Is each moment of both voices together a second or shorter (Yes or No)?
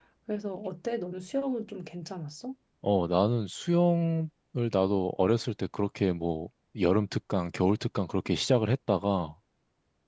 Yes